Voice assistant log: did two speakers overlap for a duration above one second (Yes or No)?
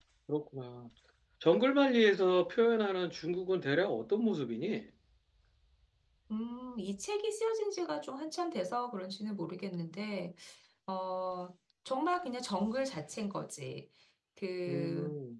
No